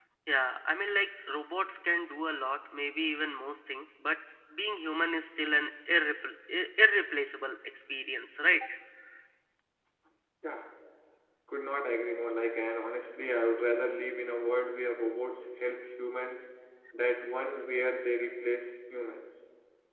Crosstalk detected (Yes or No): No